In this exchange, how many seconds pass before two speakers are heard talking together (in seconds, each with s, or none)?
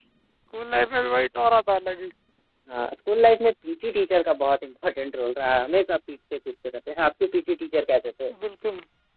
none